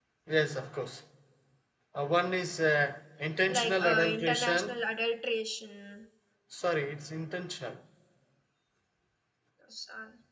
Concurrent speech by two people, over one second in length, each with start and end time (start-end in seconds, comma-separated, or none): 3.5-4.8